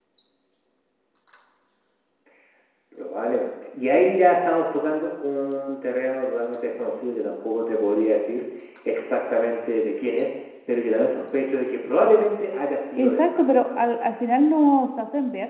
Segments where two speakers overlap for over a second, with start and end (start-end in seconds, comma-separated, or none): 13.0-14.3